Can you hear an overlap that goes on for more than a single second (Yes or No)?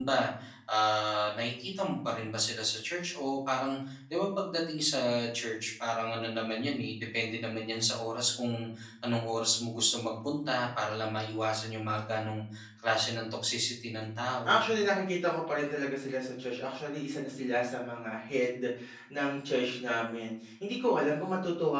No